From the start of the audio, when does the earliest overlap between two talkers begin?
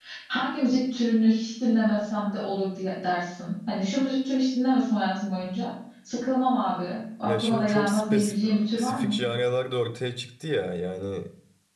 7 s

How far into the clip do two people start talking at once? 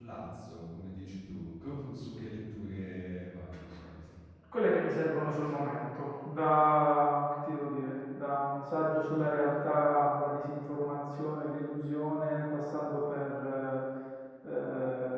none

